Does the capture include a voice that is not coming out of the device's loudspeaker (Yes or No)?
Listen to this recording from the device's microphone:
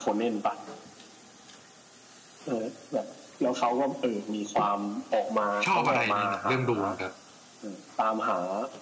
Yes